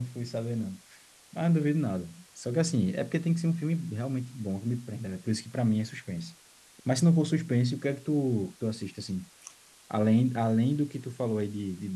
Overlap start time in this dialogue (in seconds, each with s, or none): none